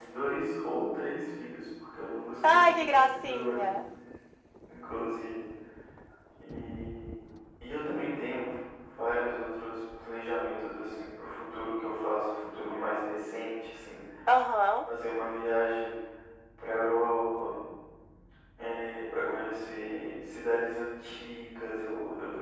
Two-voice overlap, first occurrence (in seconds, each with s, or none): 2.4 s